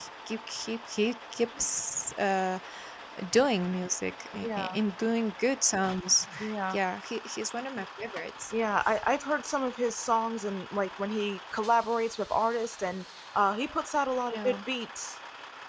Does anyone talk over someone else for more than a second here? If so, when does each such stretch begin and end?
none

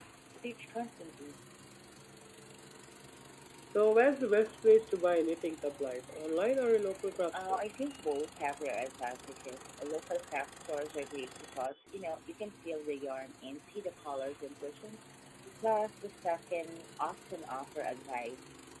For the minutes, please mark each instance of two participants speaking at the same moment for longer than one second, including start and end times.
none

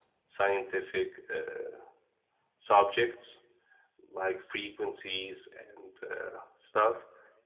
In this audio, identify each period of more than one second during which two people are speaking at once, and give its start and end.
none

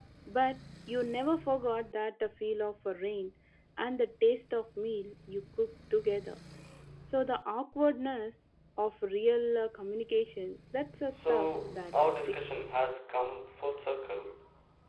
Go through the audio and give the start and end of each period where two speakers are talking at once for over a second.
11.1-12.4

